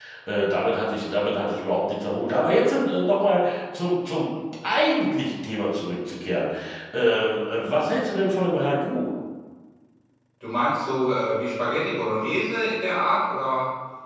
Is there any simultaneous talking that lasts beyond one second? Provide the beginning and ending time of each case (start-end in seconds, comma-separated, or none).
none